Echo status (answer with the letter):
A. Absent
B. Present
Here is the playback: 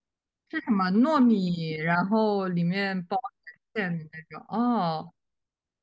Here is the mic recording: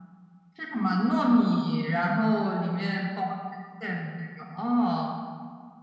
B